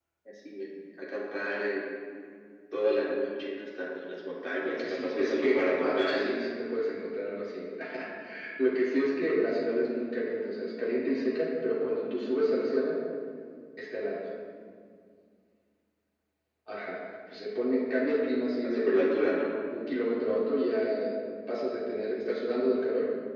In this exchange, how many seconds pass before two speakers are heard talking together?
4.6 s

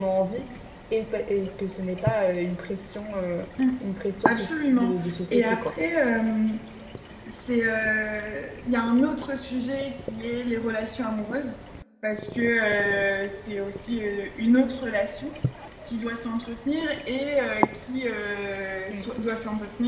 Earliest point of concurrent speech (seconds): 4.2 s

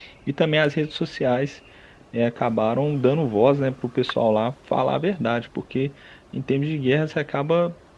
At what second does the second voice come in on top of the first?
none

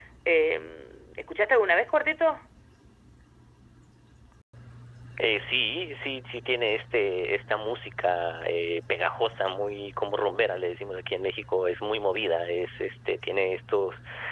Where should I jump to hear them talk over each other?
none

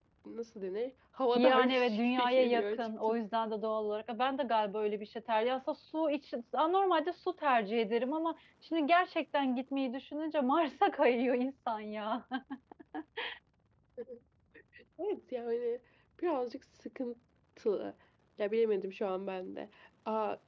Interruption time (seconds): 1.3 s

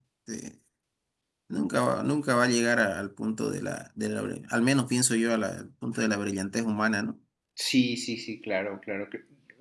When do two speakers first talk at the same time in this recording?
none

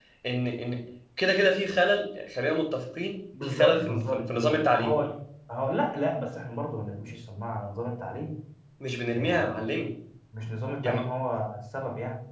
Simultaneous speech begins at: 3.4 s

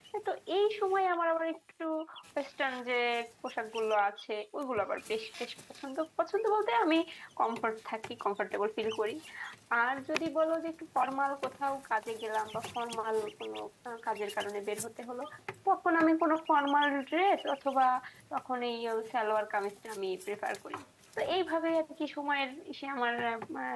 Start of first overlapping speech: none

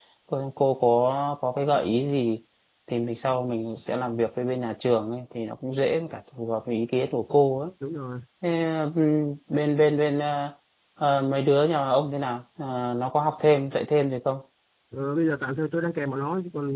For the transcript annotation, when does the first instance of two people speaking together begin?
none

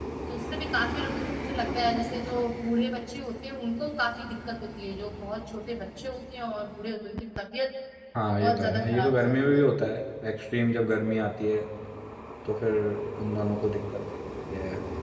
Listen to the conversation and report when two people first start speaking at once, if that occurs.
8.4 s

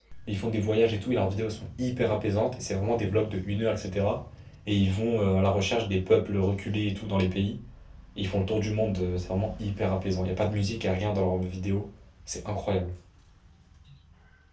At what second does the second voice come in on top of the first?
none

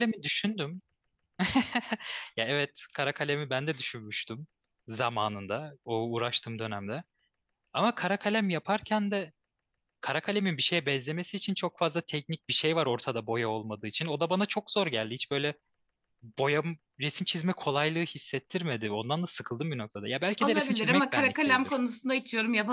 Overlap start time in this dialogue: 20.4 s

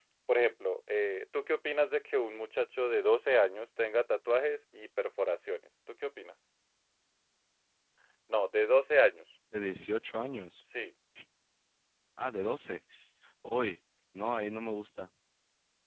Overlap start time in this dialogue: none

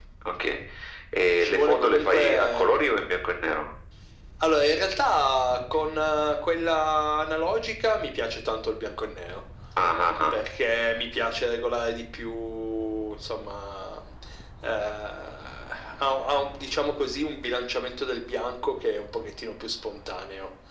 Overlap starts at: 1.4 s

